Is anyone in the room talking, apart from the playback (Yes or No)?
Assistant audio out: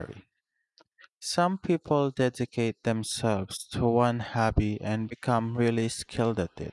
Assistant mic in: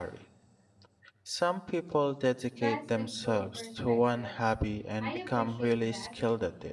Yes